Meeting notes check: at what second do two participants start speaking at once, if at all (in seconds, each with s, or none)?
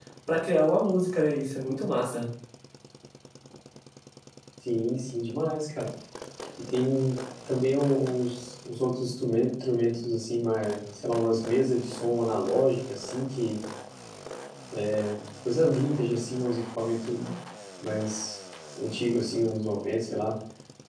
none